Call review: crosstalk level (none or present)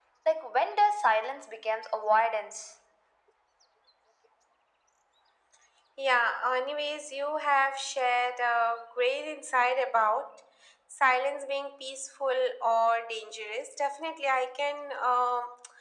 none